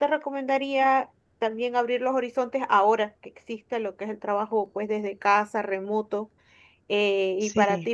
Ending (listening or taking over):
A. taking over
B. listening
B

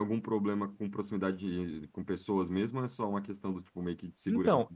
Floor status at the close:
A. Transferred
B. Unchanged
A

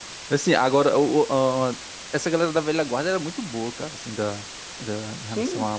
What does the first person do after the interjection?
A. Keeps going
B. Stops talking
A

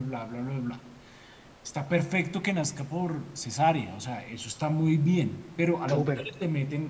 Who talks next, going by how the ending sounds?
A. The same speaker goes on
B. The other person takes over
A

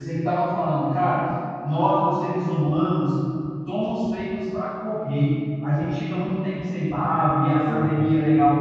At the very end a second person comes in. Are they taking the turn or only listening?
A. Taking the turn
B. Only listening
B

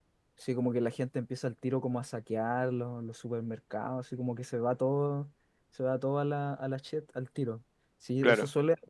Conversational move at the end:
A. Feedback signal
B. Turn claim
A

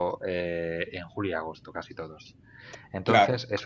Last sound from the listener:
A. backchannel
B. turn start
A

